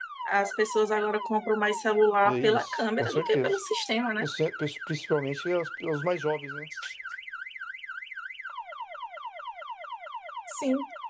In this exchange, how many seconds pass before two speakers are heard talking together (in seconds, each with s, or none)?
2.2 s